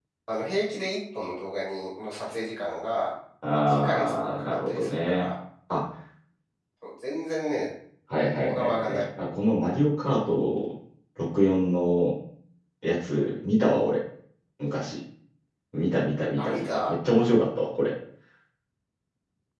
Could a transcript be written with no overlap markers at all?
No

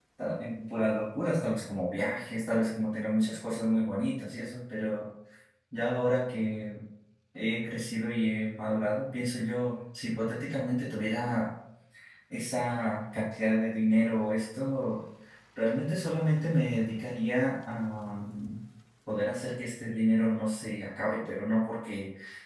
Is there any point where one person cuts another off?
No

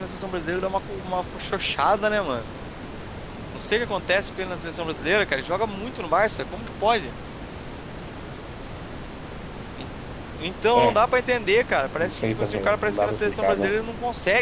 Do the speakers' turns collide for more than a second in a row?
Yes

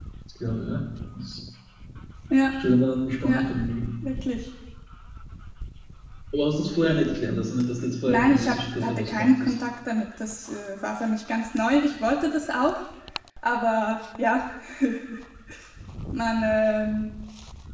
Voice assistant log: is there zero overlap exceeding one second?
No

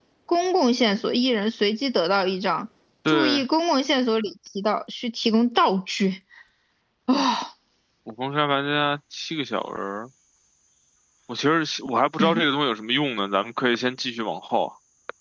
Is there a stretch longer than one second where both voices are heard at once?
No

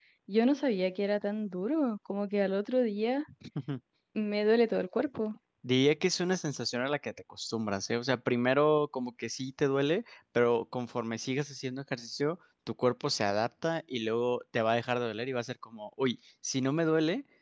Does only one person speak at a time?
Yes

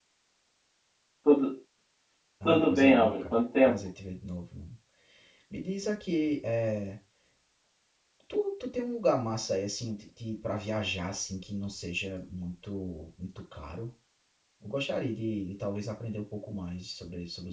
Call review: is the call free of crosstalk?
No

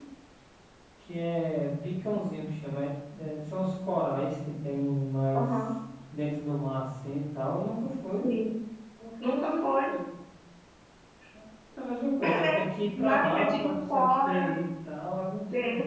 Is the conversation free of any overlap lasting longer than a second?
No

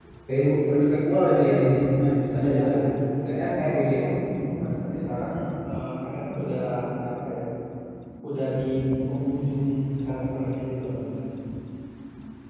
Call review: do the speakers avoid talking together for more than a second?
No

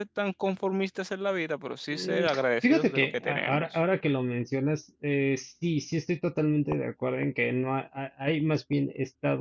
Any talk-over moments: Yes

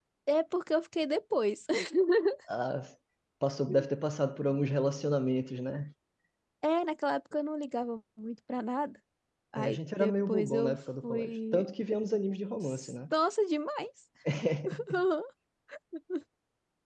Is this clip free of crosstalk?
No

